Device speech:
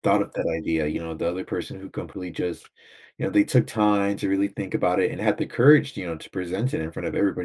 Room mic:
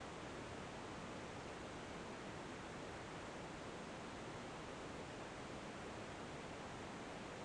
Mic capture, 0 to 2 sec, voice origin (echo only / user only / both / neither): neither